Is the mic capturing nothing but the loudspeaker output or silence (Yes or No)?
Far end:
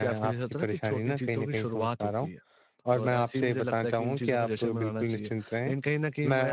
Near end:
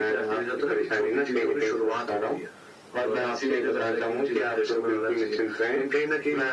Yes